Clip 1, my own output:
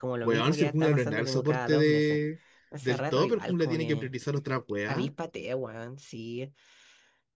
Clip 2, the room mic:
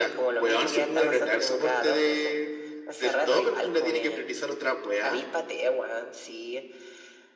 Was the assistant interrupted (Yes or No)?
No